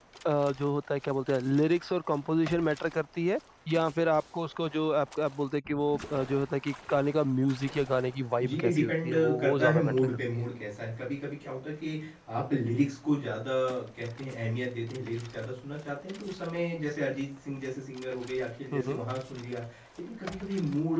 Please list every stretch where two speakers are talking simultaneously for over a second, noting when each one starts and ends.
8.4-10.4

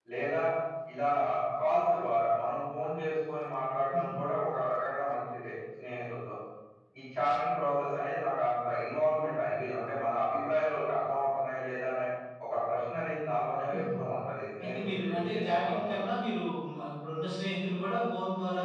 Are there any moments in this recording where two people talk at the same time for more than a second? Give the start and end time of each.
14.6-16.0

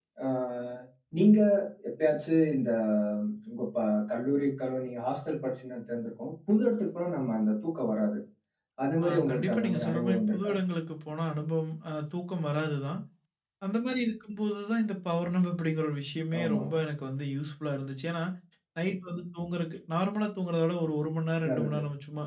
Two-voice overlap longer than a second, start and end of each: 9.0-10.5

